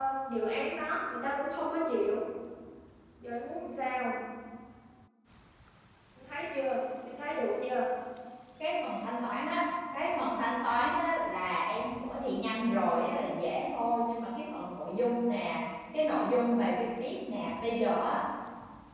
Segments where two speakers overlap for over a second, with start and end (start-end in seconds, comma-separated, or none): none